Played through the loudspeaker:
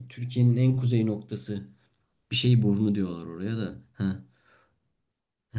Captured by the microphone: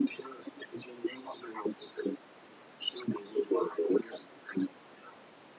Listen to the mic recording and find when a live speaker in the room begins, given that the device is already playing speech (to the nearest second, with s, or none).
none